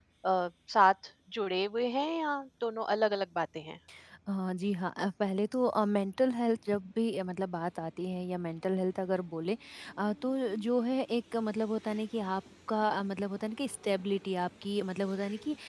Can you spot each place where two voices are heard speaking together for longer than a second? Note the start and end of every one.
none

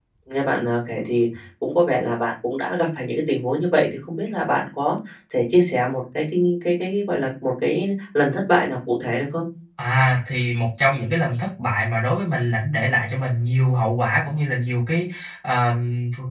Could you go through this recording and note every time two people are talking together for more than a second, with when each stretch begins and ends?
none

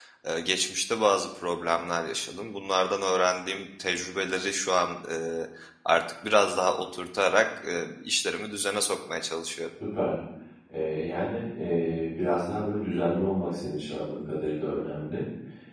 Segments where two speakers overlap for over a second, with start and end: none

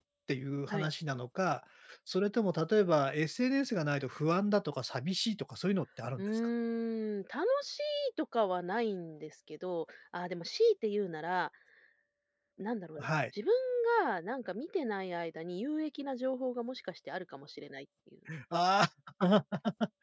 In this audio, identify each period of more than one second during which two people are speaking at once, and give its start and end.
none

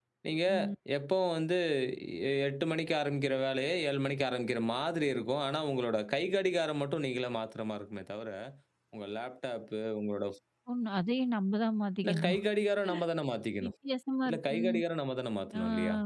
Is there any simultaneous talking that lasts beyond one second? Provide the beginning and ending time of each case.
none

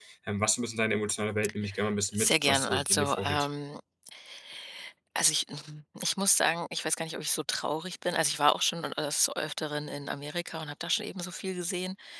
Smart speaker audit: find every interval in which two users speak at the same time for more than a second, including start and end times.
2.1-3.5

